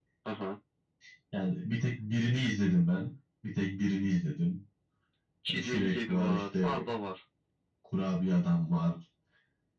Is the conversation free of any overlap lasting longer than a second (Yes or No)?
No